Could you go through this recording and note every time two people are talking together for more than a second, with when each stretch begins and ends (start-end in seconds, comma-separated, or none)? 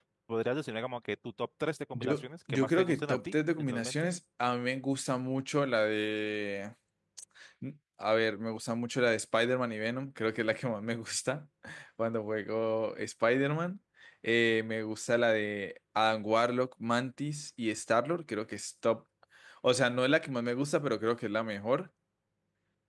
1.9-4.1